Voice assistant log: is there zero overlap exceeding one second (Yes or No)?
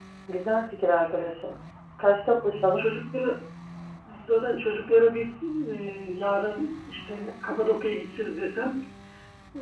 Yes